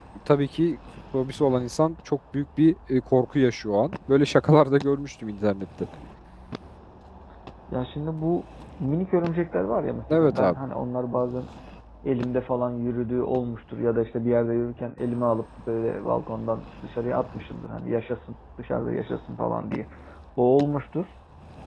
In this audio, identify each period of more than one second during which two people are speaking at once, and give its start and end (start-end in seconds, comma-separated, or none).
none